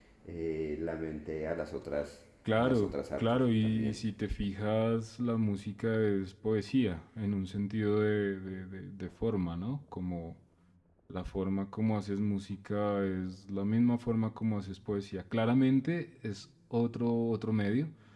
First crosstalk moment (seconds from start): 2.6 s

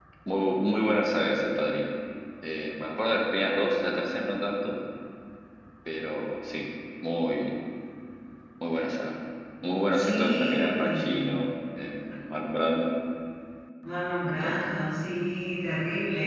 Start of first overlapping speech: 10.0 s

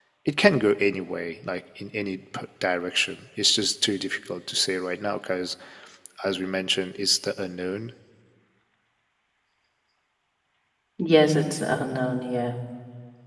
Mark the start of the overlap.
none

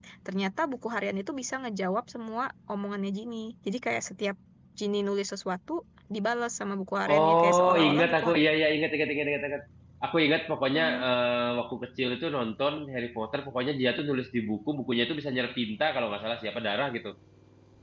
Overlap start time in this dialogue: 7.1 s

